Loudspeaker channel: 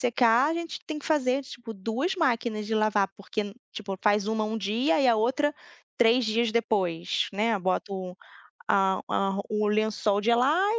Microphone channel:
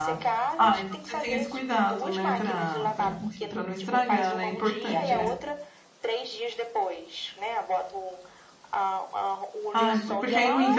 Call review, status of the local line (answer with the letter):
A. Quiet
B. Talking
B